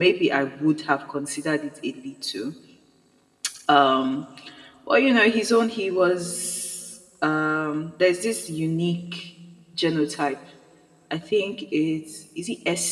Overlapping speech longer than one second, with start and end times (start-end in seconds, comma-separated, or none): none